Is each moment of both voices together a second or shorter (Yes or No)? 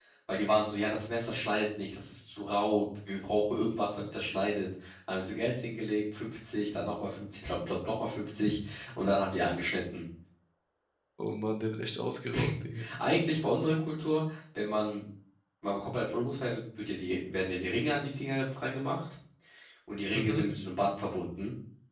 Yes